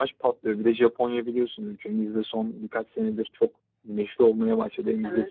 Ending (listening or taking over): listening